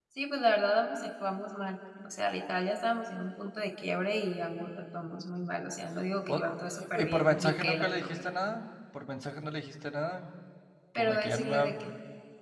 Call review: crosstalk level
present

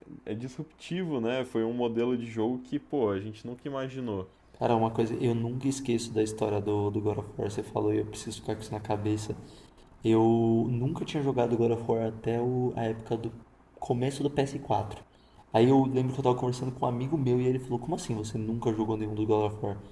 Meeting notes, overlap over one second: none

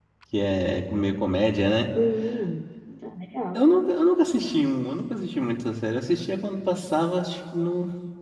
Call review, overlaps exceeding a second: none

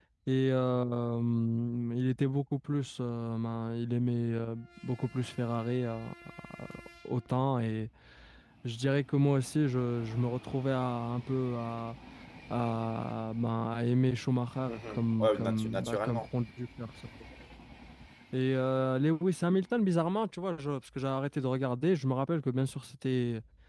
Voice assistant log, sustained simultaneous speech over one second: present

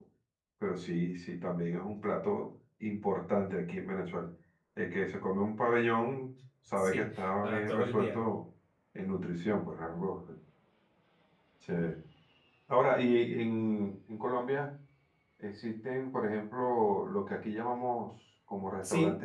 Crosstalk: present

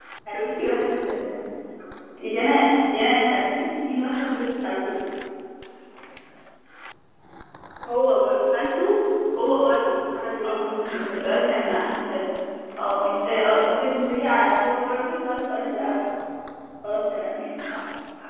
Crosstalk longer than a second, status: none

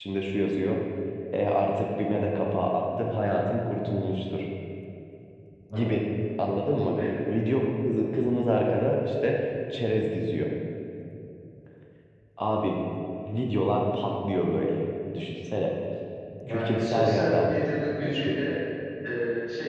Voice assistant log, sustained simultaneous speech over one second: present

